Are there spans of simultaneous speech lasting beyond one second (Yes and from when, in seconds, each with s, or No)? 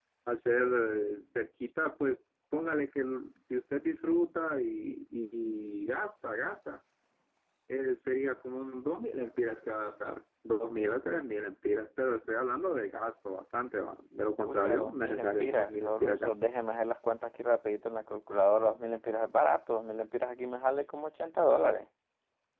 Yes, from 14.5 s